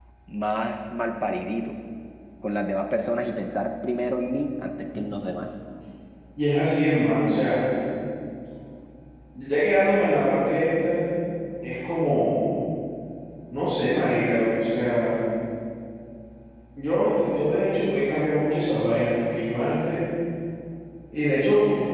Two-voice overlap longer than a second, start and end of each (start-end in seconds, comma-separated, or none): none